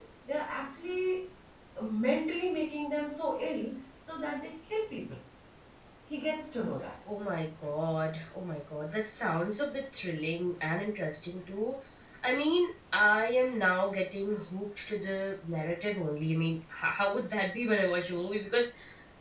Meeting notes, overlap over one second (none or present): none